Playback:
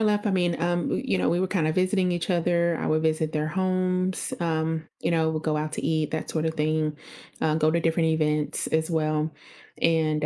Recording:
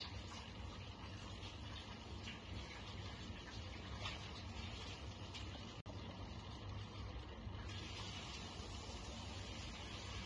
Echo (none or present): none